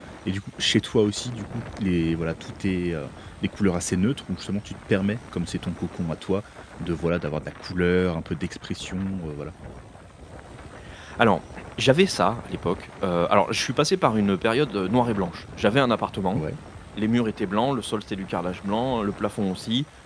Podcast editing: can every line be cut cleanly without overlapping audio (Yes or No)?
Yes